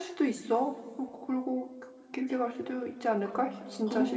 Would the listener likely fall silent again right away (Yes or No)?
No